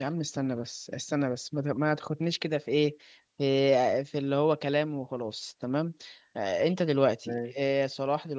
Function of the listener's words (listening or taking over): listening